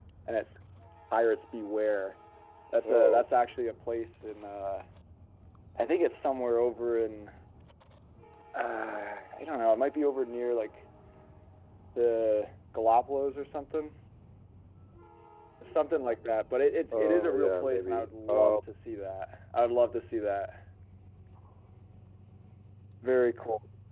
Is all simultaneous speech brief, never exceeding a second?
No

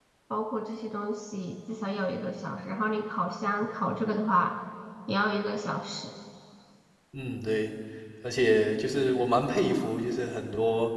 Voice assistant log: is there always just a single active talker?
Yes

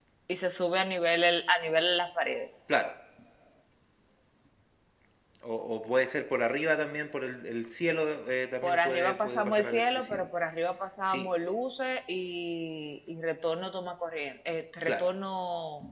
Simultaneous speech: Yes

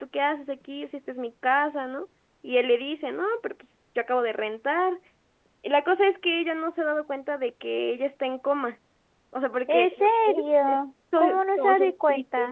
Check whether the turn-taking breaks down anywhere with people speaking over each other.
Yes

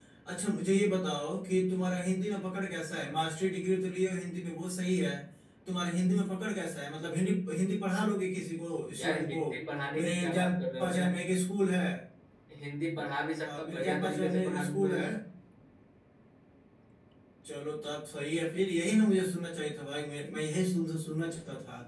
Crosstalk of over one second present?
Yes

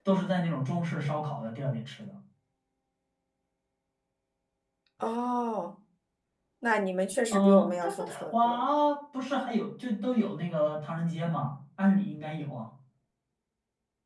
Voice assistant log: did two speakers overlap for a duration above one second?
Yes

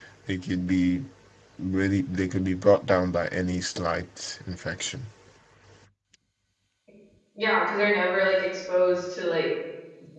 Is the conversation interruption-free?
Yes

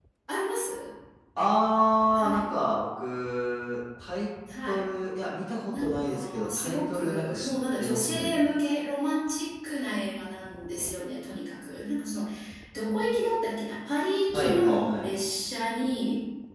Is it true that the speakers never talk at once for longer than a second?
No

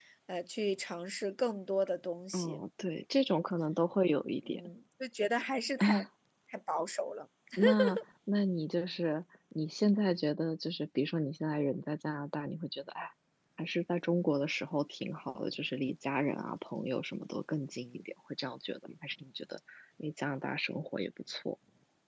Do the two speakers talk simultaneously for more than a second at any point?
No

